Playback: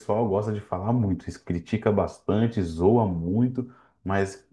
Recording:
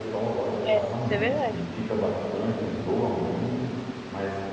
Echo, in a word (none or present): present